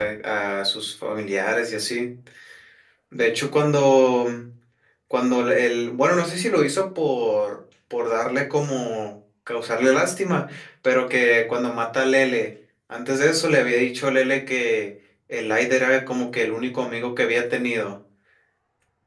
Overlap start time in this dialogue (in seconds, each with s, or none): none